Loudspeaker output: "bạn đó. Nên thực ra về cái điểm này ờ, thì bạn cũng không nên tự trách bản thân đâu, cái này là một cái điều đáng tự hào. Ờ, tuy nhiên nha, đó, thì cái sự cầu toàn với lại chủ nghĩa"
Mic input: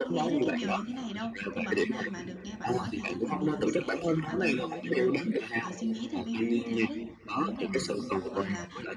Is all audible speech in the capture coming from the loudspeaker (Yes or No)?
No